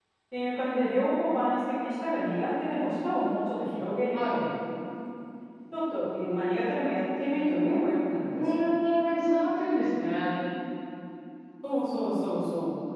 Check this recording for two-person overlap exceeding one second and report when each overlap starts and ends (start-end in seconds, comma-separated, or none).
none